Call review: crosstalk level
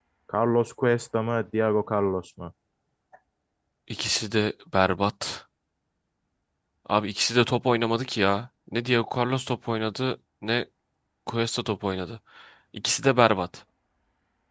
none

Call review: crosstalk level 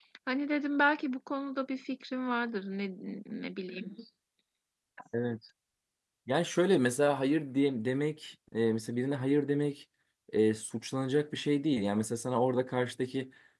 none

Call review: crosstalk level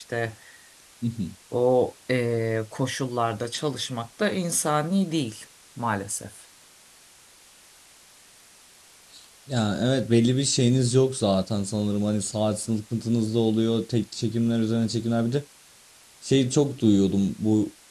none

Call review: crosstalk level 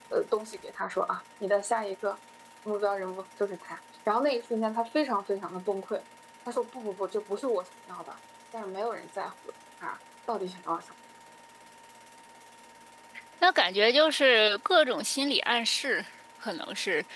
none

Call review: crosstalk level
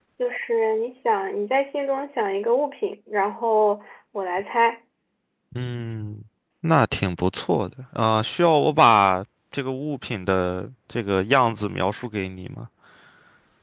none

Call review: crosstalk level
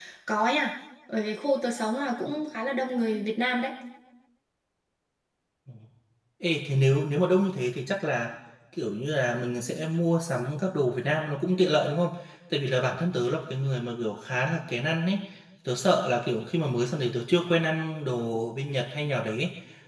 none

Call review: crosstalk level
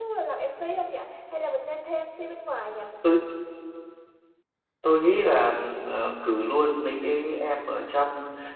none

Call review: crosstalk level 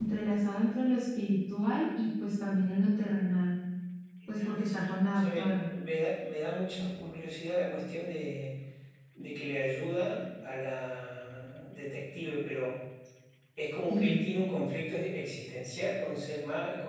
present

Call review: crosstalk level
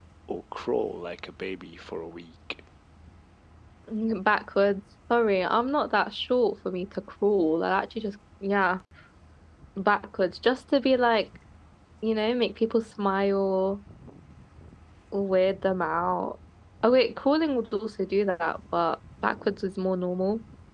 none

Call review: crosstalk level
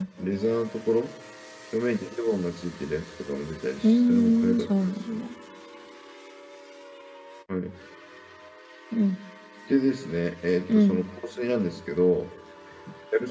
present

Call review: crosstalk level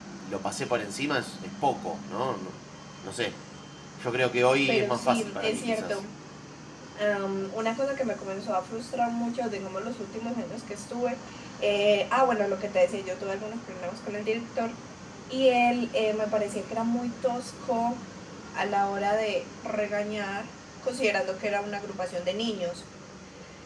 present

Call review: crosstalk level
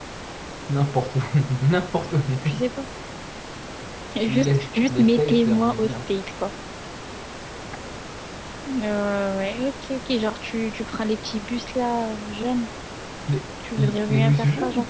present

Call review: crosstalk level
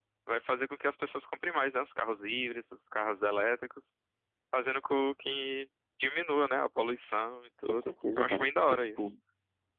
present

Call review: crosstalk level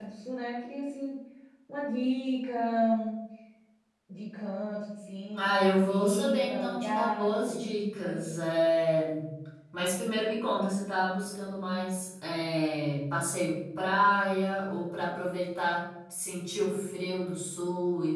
present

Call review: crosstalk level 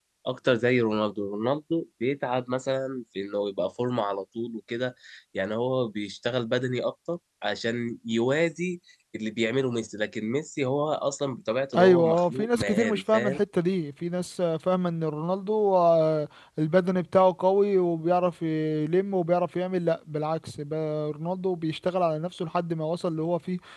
present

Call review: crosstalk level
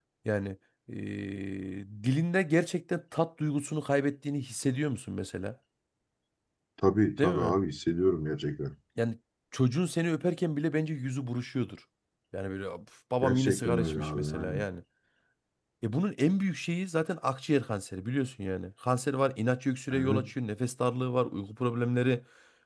present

